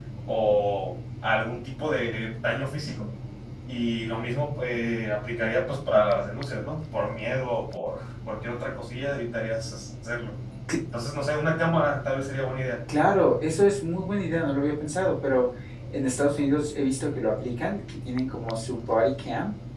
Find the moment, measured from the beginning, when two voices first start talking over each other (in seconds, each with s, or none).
none